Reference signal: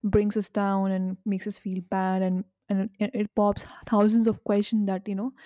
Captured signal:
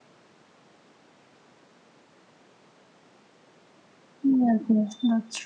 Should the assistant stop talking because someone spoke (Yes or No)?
Yes